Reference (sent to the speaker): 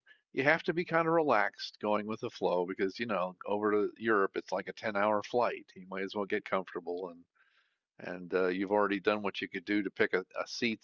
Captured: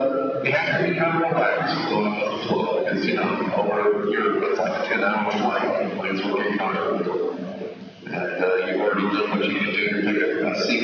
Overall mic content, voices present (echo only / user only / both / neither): echo only